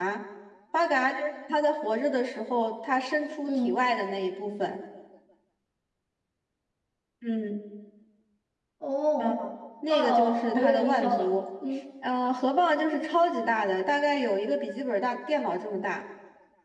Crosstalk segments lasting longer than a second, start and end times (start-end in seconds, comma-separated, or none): 9.9-11.2